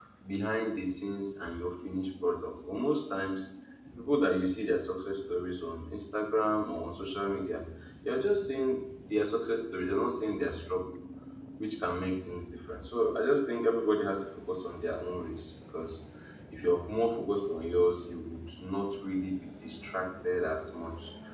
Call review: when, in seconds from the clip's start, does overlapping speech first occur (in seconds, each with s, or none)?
none